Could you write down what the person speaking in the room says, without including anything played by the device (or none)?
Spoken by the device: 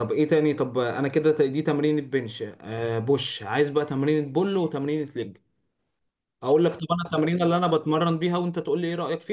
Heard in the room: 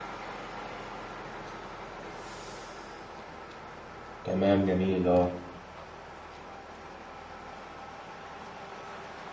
تمام جميل اه